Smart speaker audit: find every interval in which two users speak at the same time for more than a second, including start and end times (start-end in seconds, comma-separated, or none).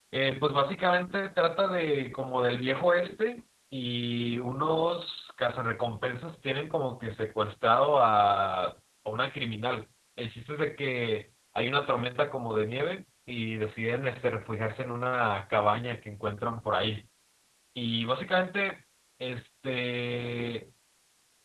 none